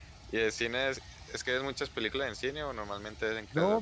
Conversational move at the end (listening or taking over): taking over